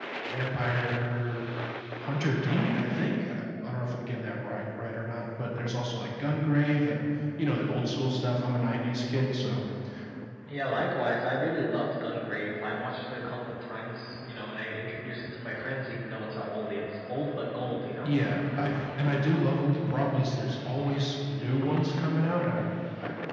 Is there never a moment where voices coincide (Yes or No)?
Yes